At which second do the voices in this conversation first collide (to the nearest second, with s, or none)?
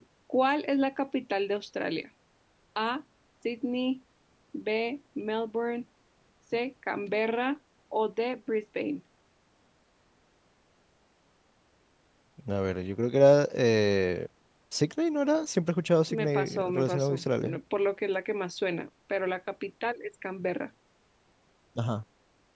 16 s